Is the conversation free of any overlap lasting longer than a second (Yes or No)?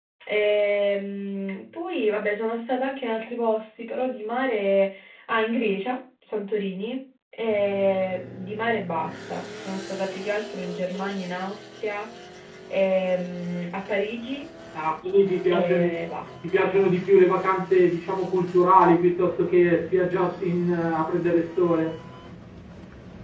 Yes